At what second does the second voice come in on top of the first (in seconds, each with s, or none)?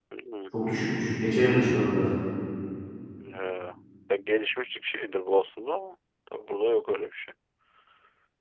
none